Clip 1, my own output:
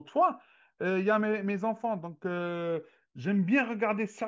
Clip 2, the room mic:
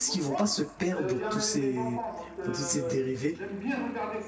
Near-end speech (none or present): present